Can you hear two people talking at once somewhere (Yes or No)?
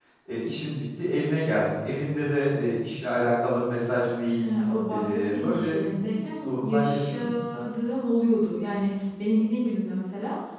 Yes